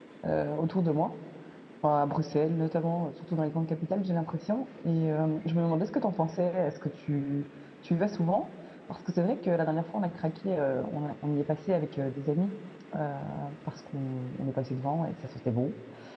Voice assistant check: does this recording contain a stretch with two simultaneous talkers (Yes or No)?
No